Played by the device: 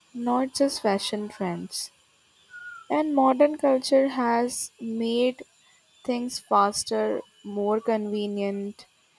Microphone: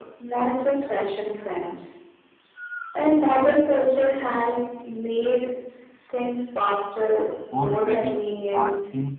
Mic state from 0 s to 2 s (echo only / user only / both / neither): echo only